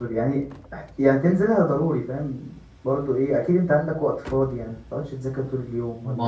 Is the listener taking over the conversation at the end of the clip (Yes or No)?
Yes